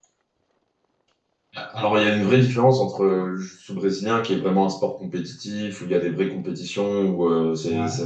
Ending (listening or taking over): listening